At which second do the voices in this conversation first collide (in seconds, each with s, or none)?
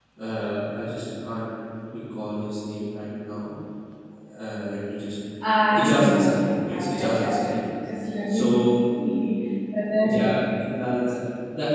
5.8 s